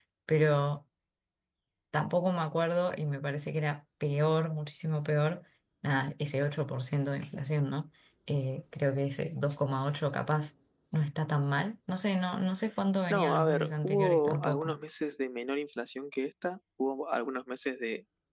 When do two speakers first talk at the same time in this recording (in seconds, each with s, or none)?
13.1 s